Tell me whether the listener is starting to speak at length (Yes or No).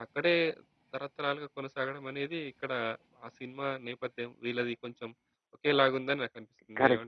Yes